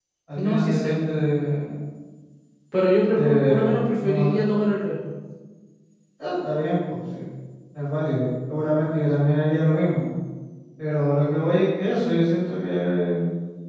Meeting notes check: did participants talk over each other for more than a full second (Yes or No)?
Yes